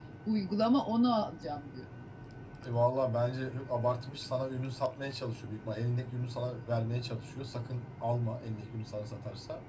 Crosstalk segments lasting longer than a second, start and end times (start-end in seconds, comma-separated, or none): none